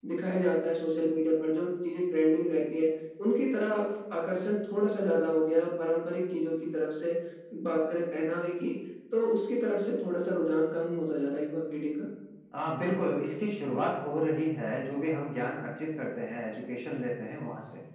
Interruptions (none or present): none